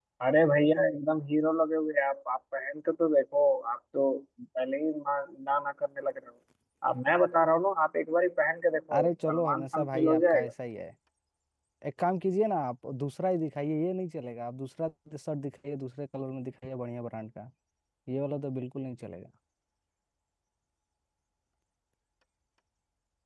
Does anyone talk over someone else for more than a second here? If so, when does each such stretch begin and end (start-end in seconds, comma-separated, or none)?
9.0-10.5